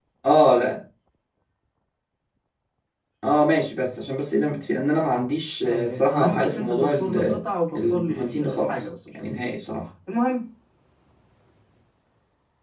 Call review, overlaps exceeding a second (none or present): present